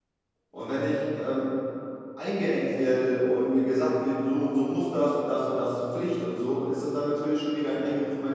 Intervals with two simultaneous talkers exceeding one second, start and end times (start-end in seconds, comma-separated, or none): none